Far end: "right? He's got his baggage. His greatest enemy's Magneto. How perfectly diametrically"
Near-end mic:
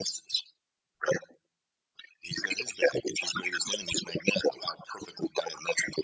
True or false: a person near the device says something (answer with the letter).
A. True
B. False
B